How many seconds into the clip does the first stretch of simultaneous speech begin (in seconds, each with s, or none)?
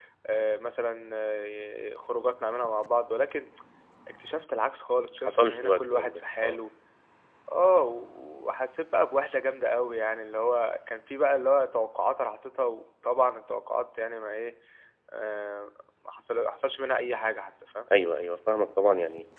5.3 s